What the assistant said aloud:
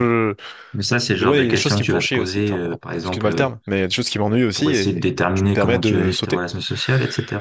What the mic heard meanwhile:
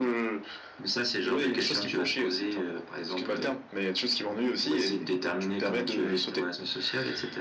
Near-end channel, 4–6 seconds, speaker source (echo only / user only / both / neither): echo only